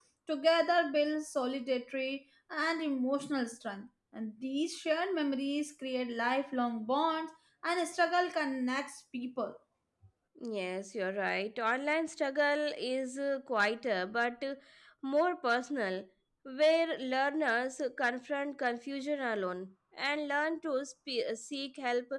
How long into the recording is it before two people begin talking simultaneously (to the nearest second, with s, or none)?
none